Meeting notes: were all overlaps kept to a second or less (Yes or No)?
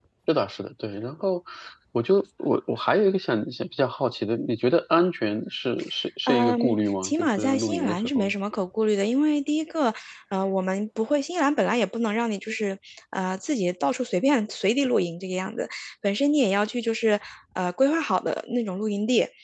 No